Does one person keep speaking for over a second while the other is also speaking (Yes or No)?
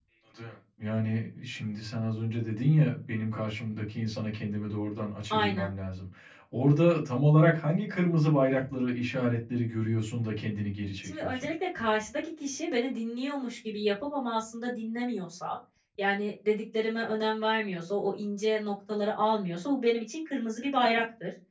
No